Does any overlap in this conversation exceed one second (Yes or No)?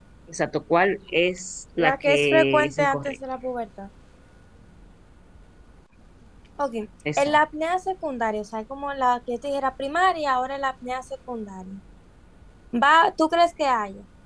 Yes